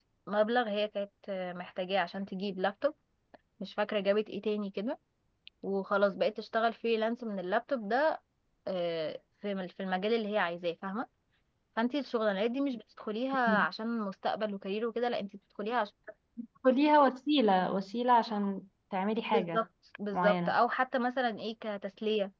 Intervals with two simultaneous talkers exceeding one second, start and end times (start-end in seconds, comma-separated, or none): none